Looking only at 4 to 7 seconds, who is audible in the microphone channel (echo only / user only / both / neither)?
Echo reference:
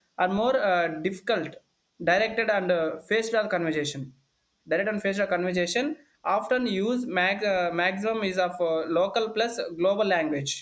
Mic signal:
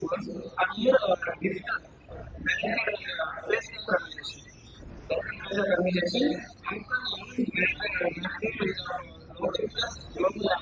echo only